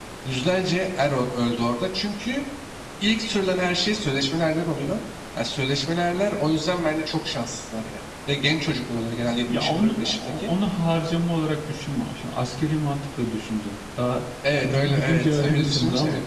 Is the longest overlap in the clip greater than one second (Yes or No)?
Yes